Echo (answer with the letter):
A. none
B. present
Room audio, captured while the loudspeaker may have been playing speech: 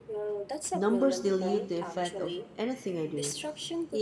B